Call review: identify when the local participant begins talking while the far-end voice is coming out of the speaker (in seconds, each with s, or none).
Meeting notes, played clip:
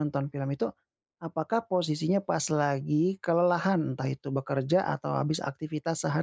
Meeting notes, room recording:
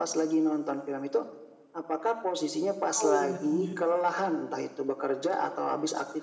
3.0 s